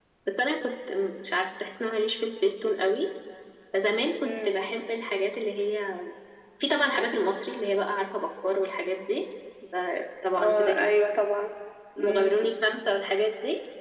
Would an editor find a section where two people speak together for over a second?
No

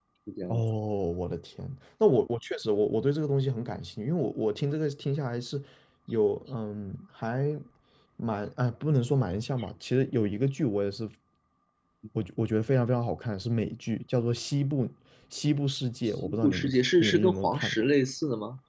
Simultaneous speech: Yes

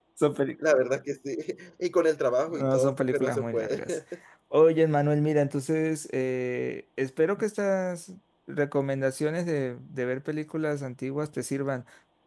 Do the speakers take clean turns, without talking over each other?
No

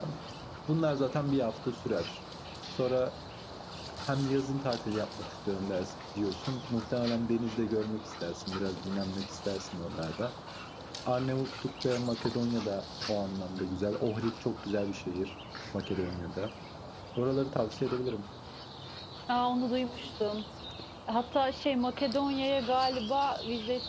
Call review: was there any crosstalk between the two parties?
No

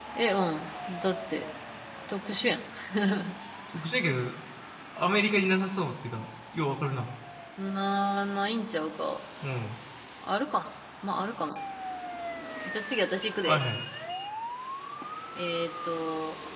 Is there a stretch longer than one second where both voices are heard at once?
No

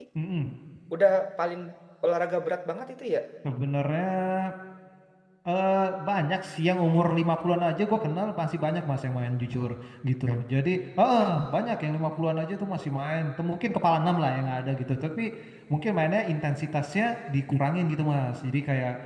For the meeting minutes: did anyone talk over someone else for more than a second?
No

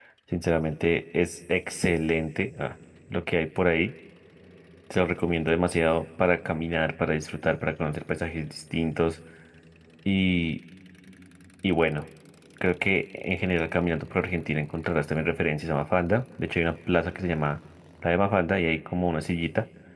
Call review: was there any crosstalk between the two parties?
No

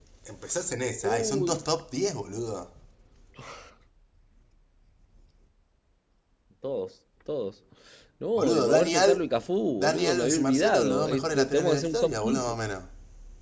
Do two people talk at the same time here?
Yes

